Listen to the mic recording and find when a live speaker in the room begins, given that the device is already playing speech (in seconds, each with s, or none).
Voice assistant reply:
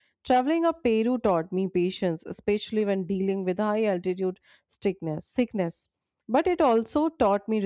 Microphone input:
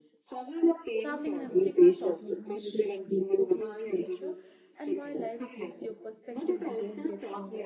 1.0 s